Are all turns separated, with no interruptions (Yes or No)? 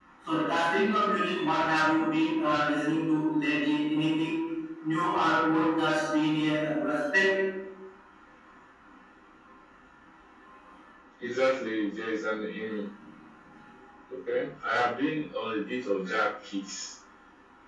Yes